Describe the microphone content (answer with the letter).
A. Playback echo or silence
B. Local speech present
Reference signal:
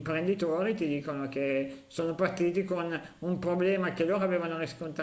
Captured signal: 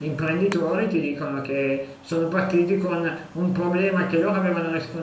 A